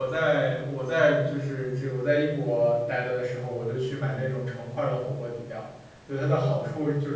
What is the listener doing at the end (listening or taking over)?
listening